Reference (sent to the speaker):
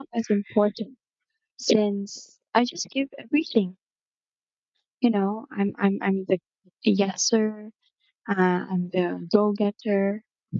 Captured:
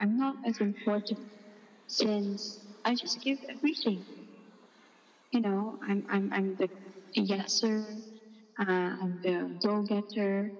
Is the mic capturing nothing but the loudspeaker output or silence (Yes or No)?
Yes